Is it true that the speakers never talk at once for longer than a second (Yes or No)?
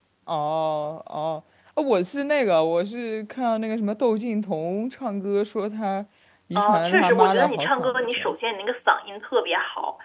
No